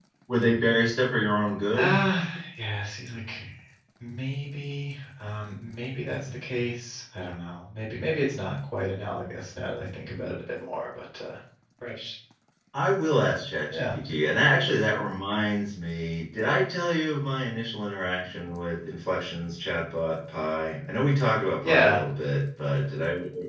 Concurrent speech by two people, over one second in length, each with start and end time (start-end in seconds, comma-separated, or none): none